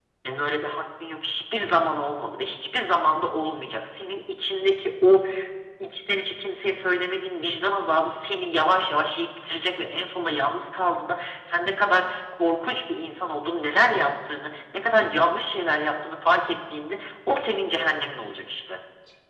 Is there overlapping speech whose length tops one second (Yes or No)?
No